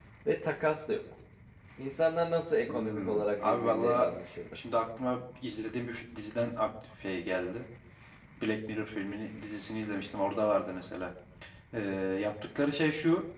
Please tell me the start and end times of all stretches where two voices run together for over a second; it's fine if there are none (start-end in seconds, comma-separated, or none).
2.7-4.1